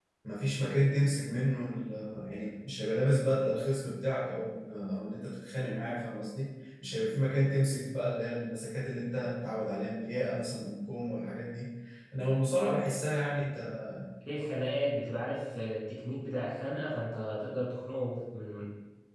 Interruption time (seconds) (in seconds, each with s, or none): none